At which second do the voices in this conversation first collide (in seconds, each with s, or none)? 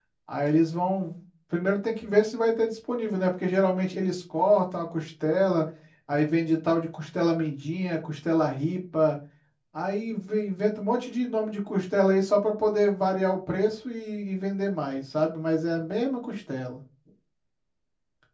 none